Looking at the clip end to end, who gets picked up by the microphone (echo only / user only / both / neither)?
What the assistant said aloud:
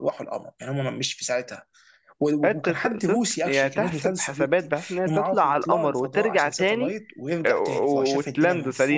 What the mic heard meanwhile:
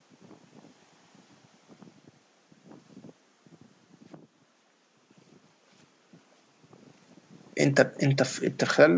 user only